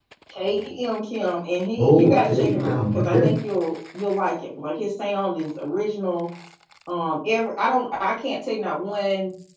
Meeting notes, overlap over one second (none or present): present